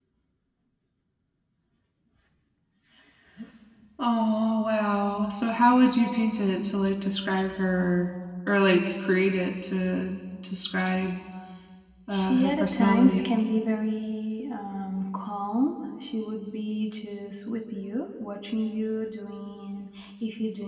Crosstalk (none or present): present